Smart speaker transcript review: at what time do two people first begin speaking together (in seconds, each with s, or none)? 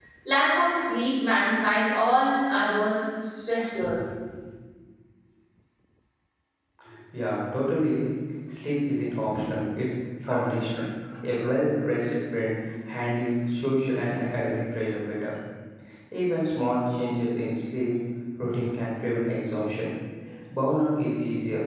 none